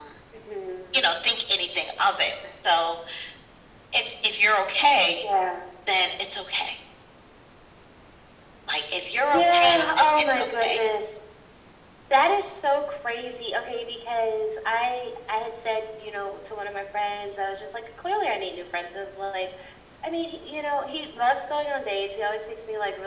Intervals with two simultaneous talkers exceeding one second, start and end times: 9.2-10.8

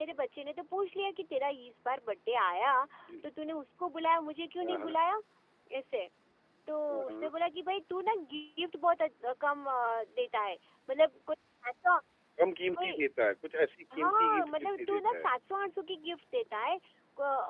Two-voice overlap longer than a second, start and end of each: 14.0-15.3

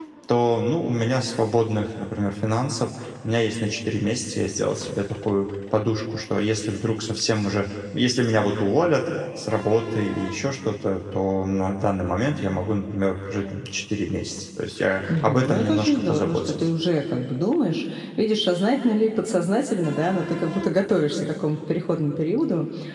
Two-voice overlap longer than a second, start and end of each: 15.2-16.6

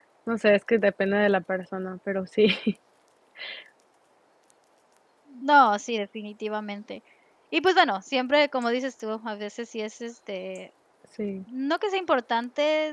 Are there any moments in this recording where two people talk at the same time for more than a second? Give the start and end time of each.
none

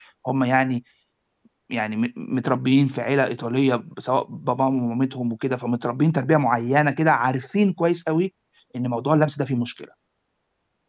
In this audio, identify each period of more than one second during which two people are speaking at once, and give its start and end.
none

